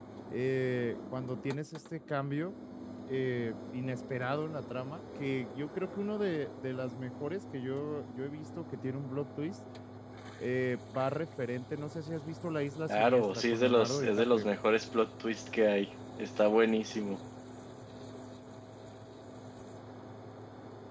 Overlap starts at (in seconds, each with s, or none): 12.9 s